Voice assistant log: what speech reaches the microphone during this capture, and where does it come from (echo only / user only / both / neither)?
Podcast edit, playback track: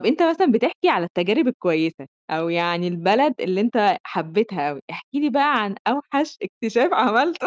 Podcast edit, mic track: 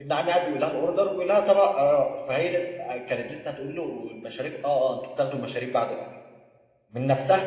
user only